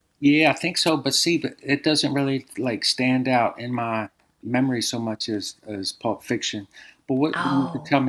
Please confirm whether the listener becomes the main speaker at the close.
No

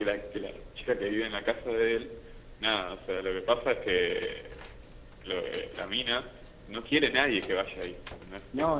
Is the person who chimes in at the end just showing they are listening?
No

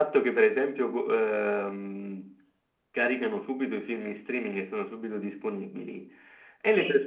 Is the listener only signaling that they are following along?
Yes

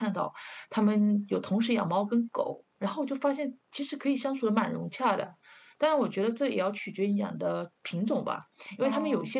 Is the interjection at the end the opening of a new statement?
No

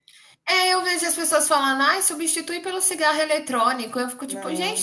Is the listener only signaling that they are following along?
Yes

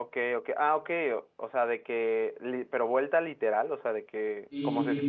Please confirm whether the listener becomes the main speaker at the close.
No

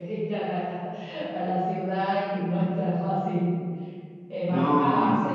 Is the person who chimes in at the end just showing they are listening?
Yes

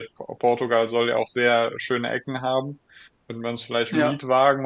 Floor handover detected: No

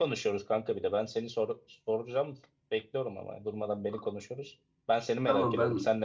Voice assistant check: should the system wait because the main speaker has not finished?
No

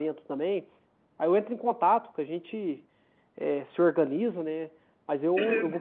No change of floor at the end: Yes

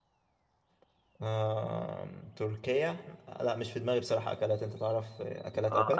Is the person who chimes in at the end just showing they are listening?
No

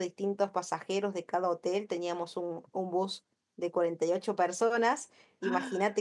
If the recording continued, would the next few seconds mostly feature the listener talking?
No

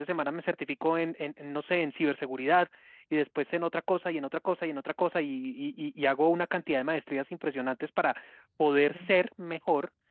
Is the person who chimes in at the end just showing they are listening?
Yes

